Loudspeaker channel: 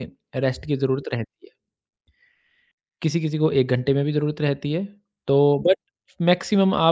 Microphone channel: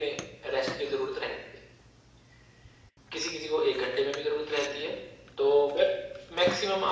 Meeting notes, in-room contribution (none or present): none